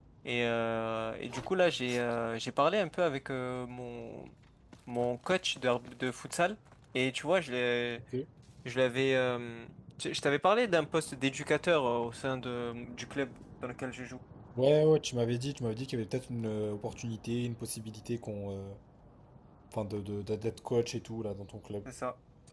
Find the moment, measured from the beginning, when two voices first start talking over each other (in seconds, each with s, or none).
none